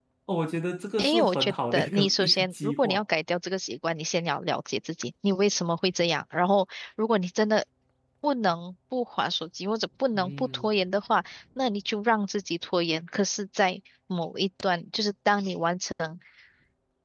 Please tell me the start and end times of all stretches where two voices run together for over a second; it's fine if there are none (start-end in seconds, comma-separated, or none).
1.0-3.0